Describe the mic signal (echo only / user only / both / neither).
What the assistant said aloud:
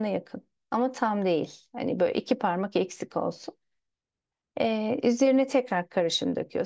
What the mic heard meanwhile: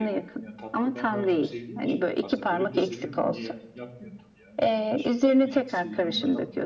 both